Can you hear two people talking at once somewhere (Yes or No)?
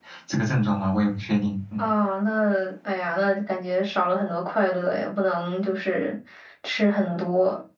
No